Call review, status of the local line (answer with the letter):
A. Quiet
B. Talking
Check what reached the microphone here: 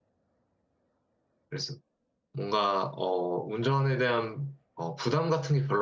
B